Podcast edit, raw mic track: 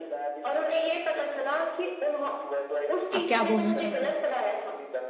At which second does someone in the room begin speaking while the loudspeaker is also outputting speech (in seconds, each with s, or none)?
3.1 s